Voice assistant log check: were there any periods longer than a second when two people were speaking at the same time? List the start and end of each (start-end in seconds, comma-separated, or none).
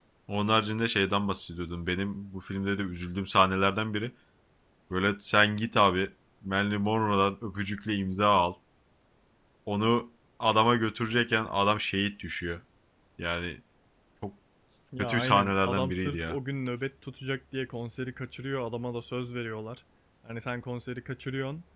15.0-16.4